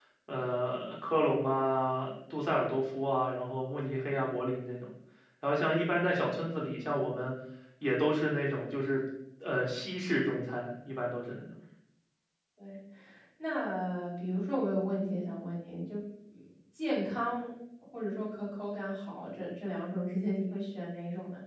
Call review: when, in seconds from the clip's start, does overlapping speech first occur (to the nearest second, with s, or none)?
none